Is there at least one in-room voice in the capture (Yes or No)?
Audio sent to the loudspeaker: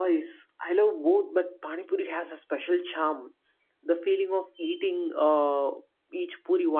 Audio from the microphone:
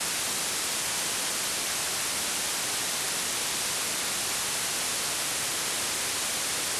No